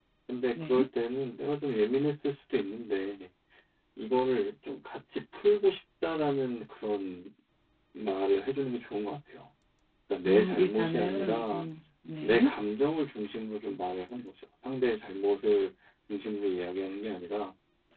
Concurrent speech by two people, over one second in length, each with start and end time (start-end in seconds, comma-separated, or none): 10.2-11.7